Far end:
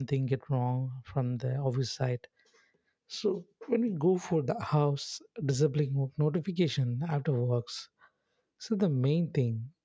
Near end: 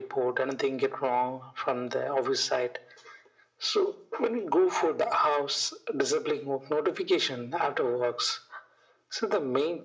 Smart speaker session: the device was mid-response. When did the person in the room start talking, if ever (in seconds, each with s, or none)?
none